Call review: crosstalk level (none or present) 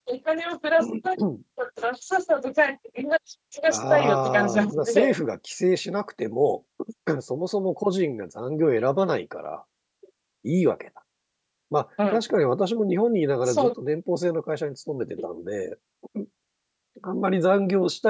present